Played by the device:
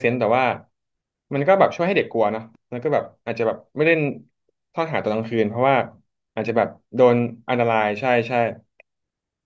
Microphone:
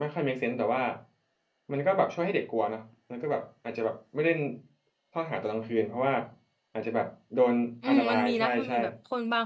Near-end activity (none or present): present